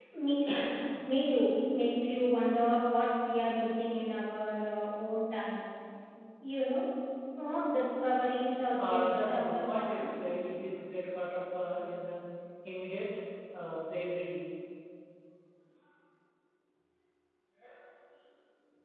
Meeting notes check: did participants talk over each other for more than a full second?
Yes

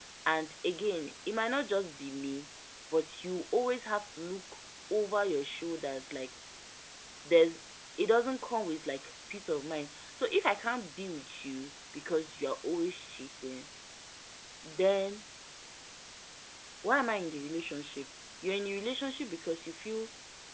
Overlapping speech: No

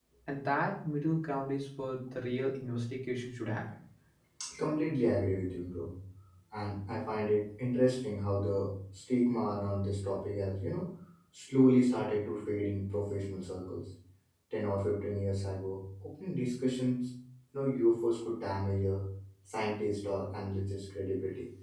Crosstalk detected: No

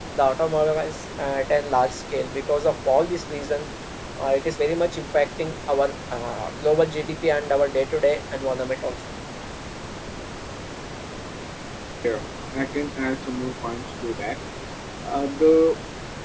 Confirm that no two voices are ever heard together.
Yes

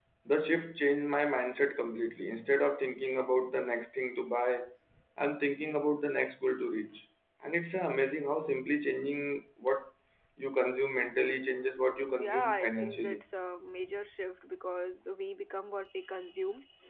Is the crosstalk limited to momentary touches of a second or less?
No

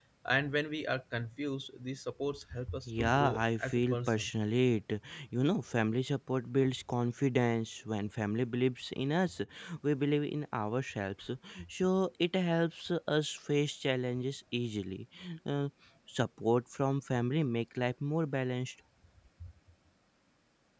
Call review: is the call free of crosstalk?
No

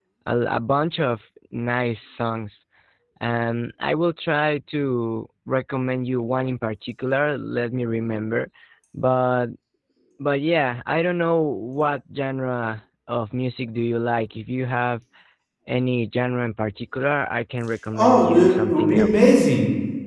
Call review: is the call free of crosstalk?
No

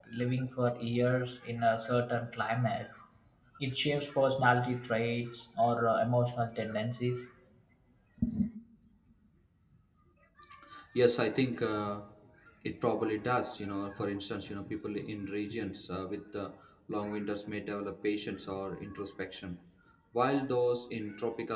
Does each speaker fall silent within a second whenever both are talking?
Yes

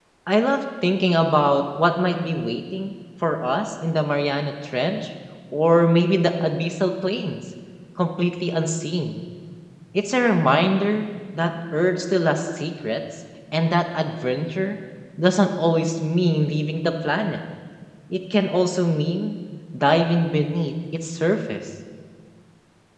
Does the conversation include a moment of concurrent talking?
No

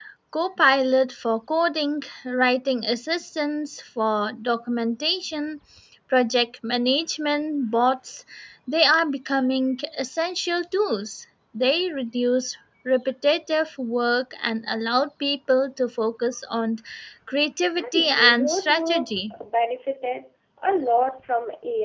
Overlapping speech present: Yes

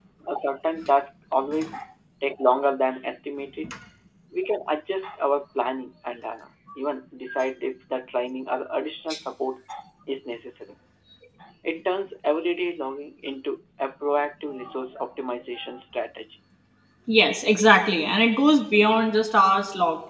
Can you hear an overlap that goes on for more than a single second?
No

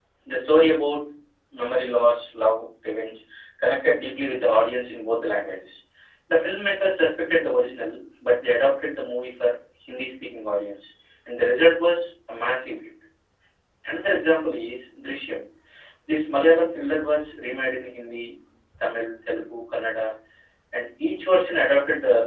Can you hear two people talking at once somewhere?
No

